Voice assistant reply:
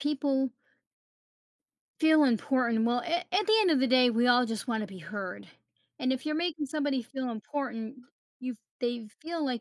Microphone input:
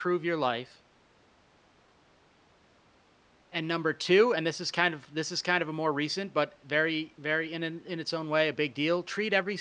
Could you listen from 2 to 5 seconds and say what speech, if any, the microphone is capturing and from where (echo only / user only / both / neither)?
user only